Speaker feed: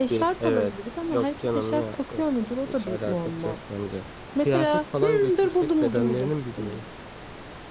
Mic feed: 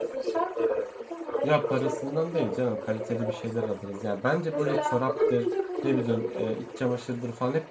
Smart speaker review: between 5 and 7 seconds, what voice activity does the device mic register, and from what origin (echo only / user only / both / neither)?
both